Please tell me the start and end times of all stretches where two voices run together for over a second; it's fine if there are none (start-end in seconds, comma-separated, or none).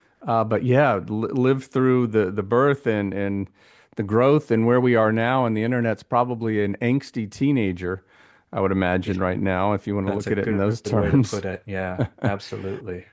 10.1-11.4